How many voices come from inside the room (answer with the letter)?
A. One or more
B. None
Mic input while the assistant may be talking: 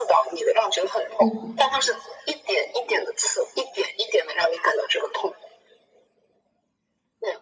A